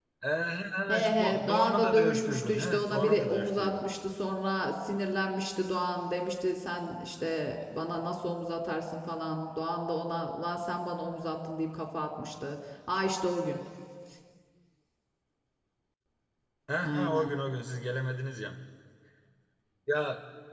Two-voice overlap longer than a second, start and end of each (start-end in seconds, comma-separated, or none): 0.9-3.8